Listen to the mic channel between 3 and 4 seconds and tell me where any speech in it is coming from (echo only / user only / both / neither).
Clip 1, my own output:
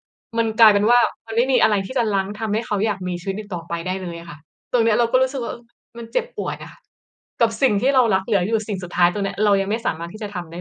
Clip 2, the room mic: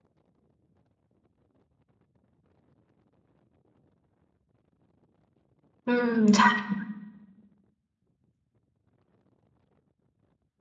neither